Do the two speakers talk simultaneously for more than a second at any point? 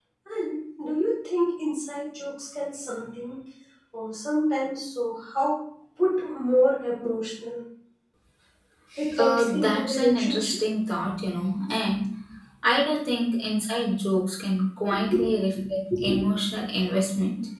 Yes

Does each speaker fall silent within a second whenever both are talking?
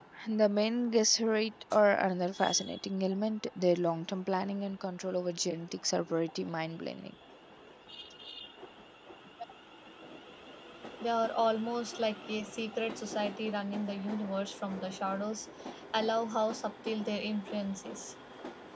Yes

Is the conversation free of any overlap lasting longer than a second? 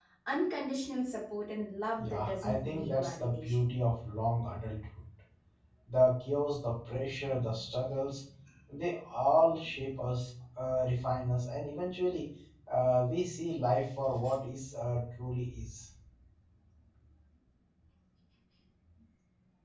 No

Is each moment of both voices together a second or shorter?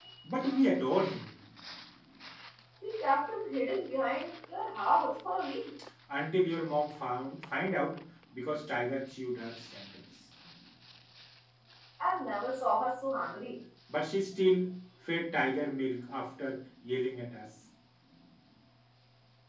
Yes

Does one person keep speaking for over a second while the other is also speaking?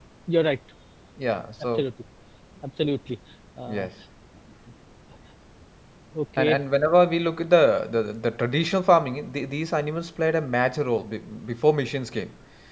No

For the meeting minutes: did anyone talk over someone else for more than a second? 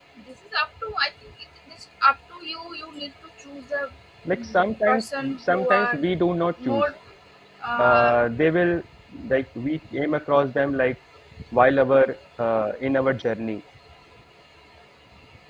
Yes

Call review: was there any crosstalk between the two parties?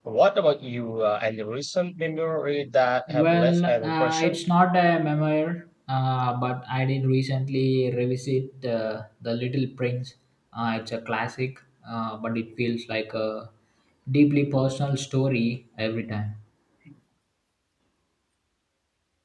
Yes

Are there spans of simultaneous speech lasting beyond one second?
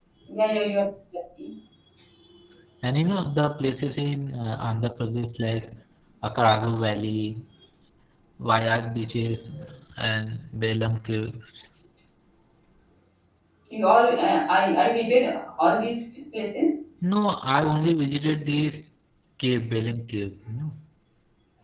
No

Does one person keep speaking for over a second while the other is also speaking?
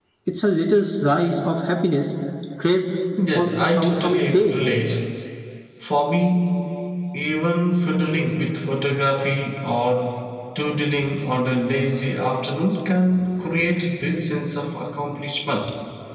Yes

